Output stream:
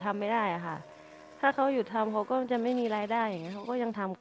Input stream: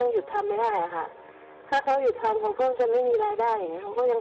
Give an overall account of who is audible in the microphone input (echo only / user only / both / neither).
echo only